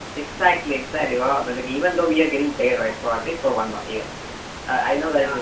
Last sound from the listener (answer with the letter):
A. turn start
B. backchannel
B